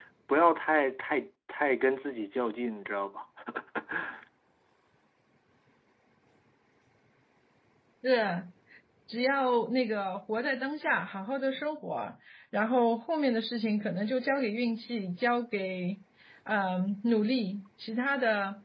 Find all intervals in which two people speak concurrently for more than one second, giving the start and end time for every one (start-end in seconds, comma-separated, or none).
none